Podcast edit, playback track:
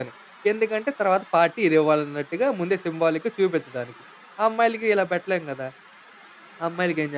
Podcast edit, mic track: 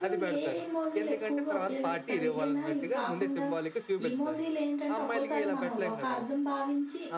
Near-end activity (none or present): present